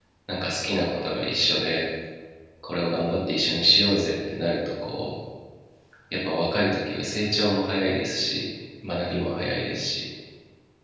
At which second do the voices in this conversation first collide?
none

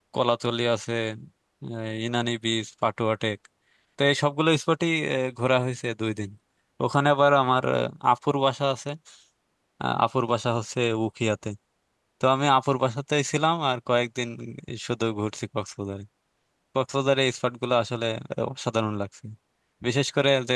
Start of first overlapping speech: none

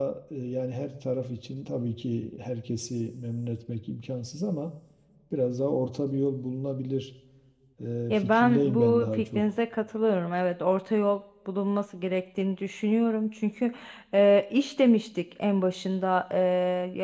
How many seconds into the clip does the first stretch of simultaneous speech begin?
8.1 s

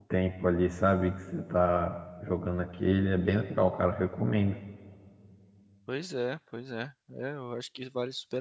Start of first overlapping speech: none

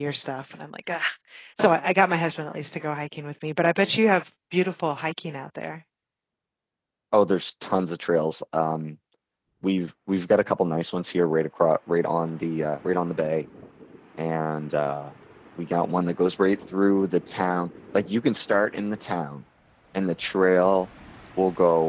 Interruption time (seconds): none

